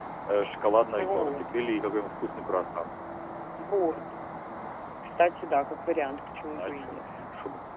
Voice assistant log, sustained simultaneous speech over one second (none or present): none